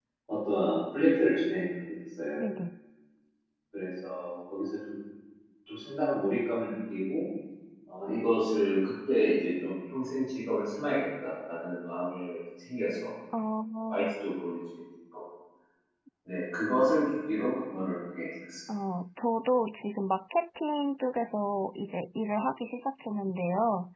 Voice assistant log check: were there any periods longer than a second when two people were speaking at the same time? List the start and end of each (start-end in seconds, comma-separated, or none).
none